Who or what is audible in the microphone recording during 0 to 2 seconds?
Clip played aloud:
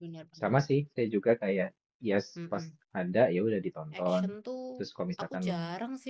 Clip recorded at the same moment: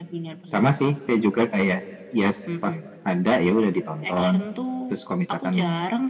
echo only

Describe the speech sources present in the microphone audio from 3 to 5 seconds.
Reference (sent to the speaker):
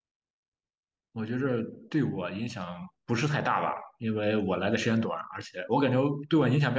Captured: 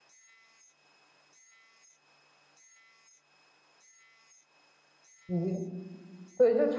neither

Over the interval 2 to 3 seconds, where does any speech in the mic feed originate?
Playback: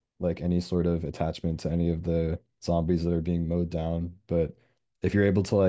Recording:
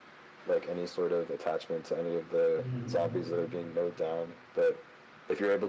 both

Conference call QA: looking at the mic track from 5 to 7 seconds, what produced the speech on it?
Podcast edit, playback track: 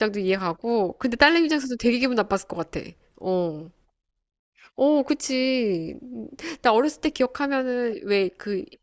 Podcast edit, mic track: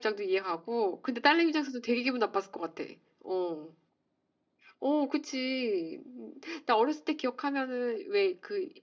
echo only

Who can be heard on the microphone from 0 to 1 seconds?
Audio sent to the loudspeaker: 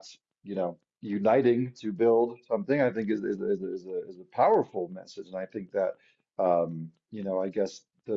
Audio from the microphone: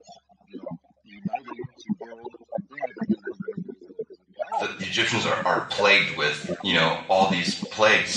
echo only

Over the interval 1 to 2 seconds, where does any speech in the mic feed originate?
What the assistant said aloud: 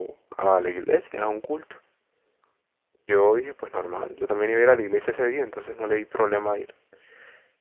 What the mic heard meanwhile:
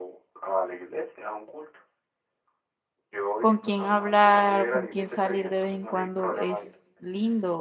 echo only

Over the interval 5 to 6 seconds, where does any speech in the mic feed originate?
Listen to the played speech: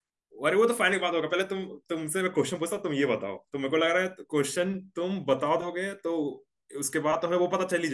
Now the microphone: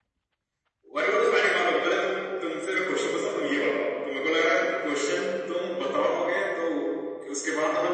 echo only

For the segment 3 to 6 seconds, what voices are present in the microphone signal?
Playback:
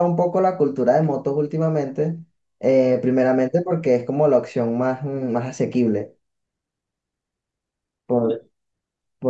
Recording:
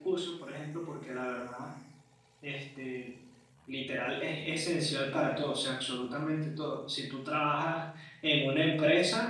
user only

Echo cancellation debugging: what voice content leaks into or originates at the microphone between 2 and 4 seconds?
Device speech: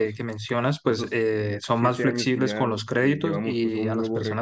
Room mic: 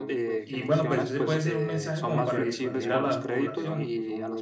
both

